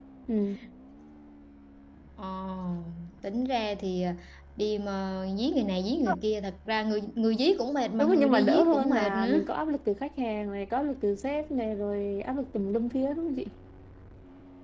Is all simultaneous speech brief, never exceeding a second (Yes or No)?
No